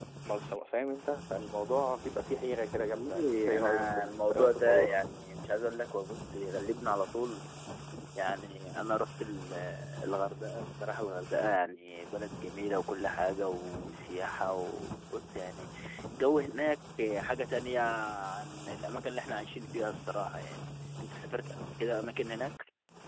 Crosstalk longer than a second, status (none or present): present